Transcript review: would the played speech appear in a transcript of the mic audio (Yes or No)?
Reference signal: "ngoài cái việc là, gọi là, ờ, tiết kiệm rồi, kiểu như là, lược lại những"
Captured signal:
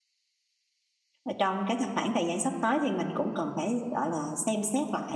No